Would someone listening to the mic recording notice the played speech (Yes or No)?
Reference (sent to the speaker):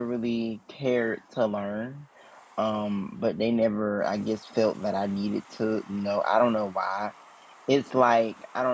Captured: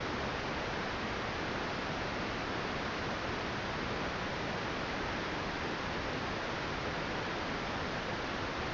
No